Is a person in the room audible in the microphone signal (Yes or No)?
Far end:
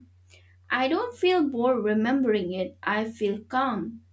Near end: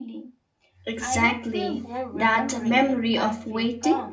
Yes